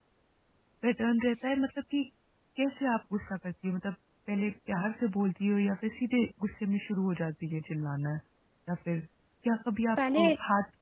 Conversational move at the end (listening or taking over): listening